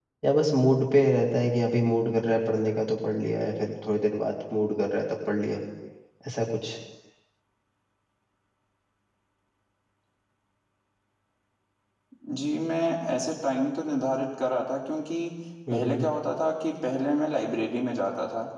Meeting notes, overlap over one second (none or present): none